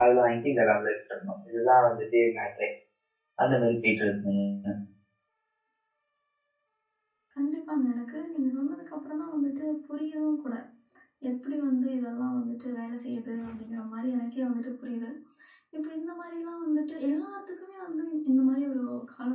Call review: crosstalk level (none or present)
none